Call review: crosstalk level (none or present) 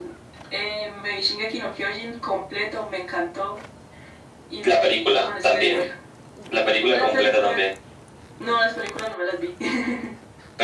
present